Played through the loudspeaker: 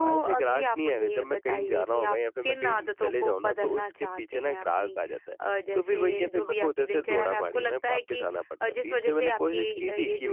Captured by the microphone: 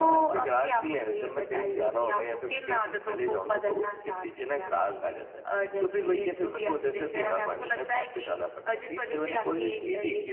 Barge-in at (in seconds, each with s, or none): none